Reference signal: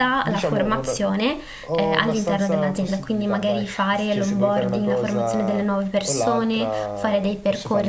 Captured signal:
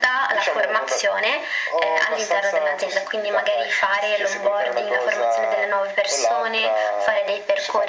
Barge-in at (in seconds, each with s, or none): none